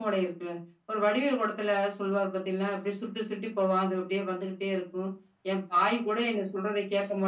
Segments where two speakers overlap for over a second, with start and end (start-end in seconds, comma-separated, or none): none